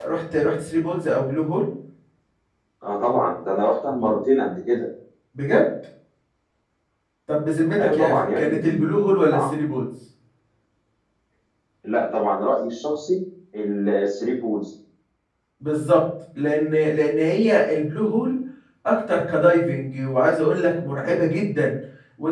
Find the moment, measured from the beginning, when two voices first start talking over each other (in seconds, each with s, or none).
7.8 s